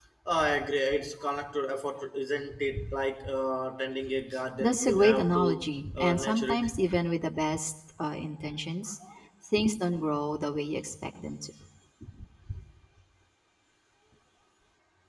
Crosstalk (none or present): present